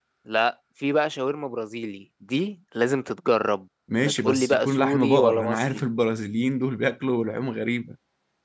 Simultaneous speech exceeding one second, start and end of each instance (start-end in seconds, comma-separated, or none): 4.0-5.8